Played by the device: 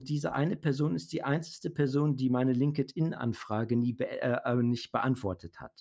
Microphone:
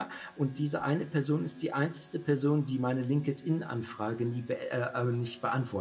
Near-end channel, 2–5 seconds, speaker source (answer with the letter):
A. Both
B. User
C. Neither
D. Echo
D